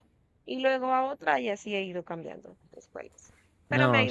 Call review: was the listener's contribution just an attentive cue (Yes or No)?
No